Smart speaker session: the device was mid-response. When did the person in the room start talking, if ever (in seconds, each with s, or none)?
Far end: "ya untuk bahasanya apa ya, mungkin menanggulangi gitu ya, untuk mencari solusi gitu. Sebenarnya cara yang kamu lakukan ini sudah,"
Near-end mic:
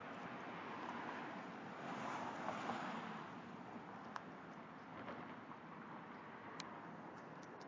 none